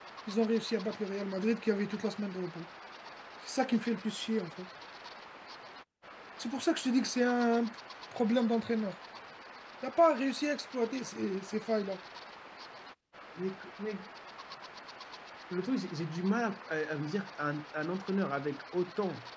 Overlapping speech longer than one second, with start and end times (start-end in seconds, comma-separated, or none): none